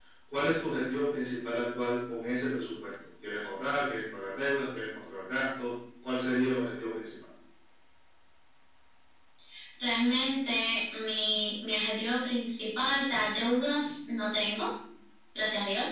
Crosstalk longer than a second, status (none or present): none